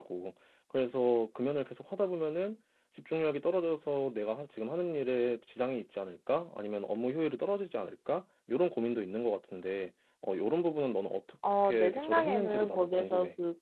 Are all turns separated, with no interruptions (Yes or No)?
No